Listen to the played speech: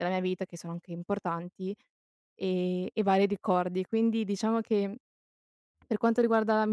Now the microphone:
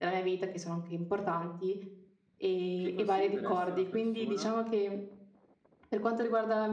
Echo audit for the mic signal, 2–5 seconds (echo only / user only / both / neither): both